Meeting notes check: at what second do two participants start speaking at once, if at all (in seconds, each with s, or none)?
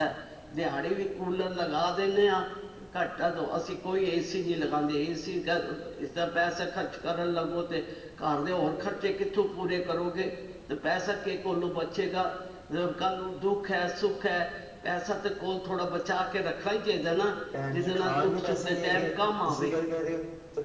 17.5 s